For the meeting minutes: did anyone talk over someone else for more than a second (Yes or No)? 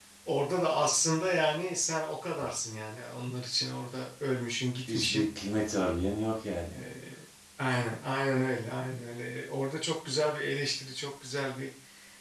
No